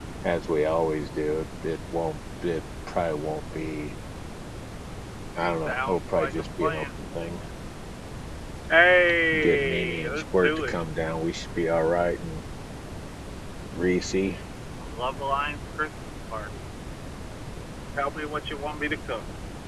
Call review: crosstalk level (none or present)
present